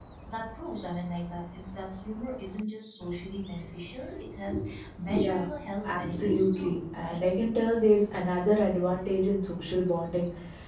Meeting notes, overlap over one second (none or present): present